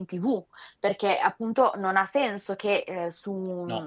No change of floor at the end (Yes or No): Yes